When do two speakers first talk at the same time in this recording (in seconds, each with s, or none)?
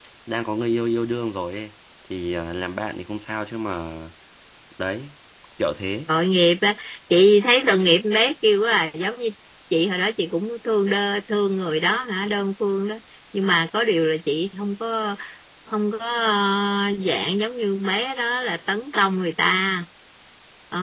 none